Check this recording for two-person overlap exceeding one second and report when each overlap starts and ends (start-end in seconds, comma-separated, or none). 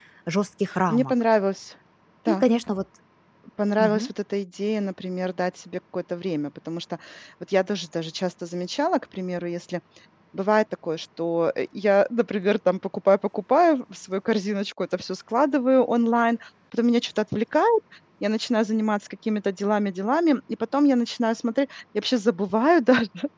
none